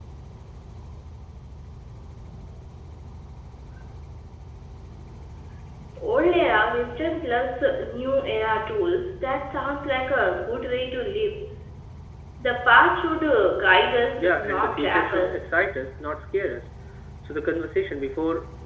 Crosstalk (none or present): present